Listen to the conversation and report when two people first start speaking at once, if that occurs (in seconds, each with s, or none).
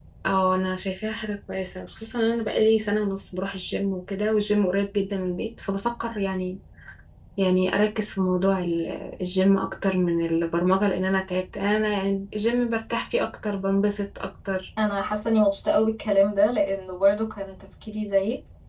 none